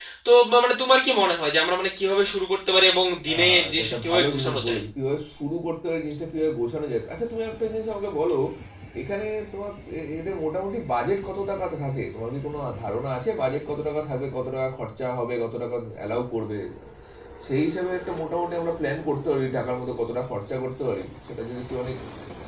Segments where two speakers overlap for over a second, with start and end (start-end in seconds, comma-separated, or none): 3.3-4.8